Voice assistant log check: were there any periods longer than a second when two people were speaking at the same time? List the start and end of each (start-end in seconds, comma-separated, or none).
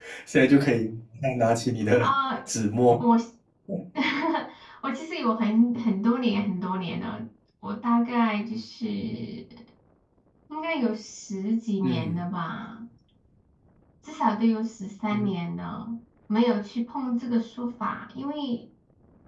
none